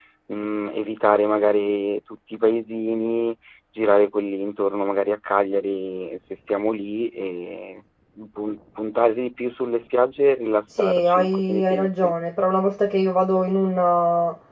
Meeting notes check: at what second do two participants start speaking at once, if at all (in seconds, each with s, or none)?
10.7 s